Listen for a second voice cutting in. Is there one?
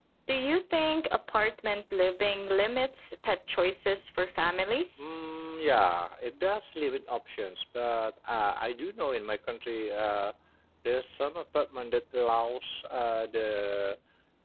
No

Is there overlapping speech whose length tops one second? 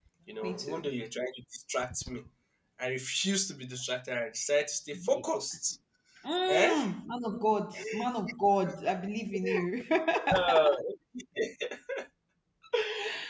No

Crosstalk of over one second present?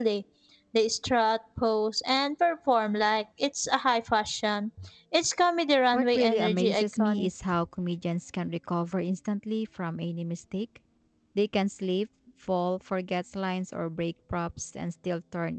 Yes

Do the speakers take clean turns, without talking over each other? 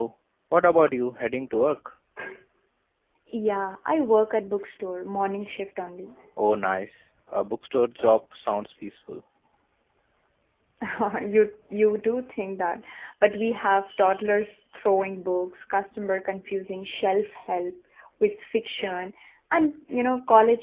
Yes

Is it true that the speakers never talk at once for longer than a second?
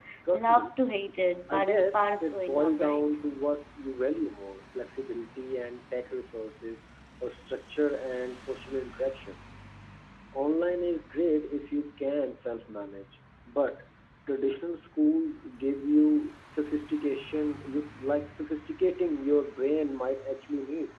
No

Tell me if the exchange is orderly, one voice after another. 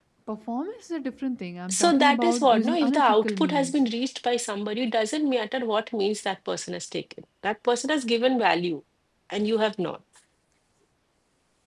No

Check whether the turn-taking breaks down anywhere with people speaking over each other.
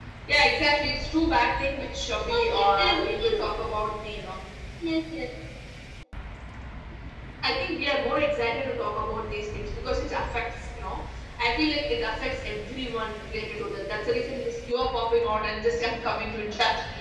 Yes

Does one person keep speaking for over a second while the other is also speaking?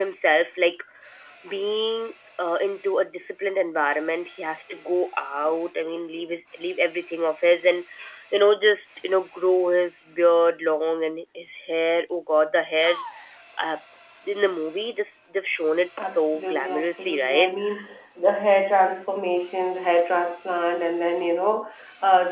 Yes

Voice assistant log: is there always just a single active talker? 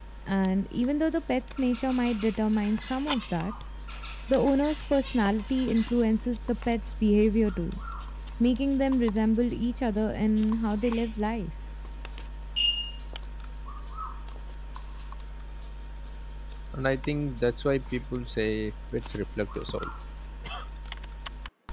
Yes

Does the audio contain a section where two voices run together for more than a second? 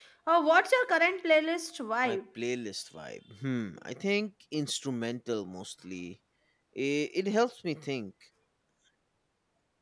No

